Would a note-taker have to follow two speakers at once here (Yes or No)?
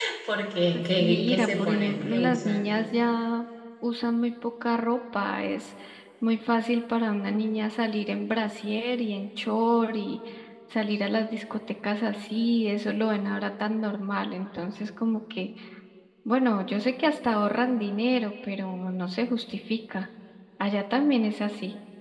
Yes